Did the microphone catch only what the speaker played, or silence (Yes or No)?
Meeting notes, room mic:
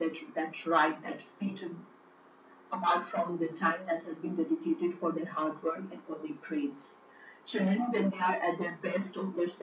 Yes